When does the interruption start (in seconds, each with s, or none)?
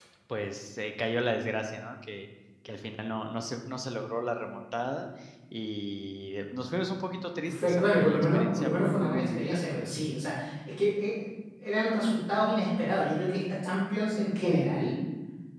7.5 s